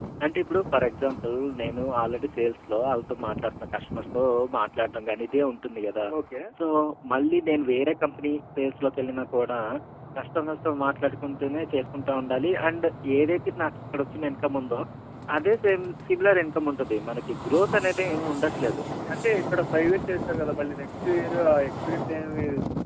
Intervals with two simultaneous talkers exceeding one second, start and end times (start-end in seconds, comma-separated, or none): none